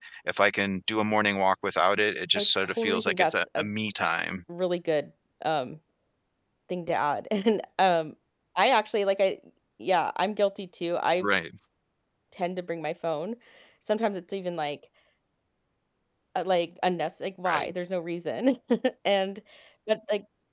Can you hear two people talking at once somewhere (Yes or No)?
Yes